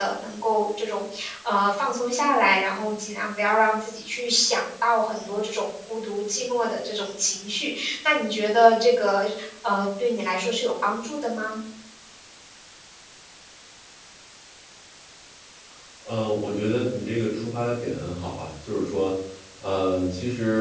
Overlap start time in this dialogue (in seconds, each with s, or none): none